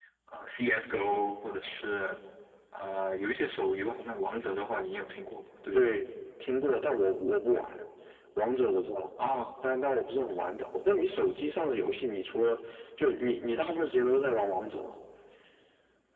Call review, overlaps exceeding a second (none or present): none